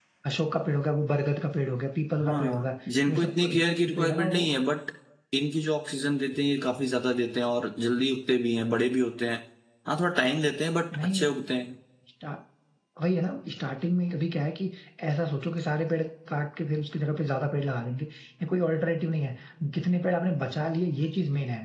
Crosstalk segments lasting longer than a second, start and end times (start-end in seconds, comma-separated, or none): 3.1-4.5